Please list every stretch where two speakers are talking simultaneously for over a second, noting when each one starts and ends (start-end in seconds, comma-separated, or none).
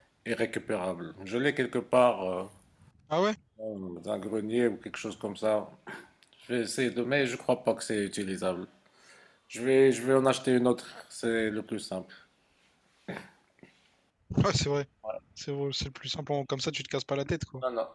none